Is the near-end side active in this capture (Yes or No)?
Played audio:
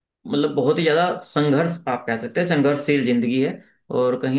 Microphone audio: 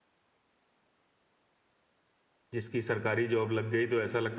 Yes